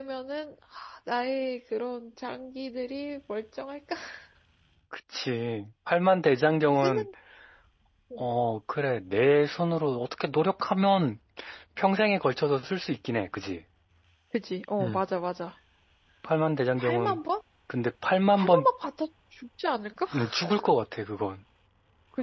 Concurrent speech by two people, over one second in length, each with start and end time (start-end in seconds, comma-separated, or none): none